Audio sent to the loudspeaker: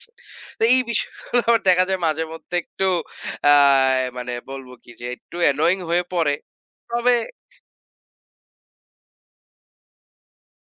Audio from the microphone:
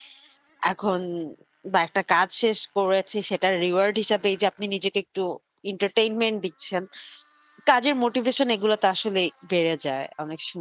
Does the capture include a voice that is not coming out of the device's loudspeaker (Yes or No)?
Yes